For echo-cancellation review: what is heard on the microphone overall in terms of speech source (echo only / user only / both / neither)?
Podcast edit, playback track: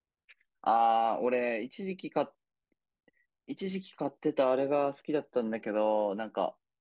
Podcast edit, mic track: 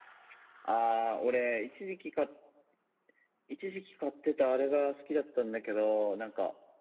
echo only